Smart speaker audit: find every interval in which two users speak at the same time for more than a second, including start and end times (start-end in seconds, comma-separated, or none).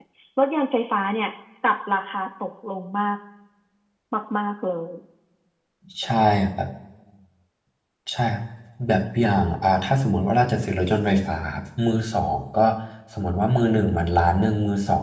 none